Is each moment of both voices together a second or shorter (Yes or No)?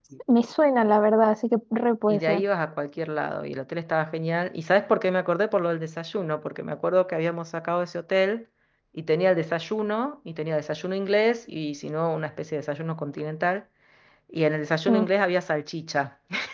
Yes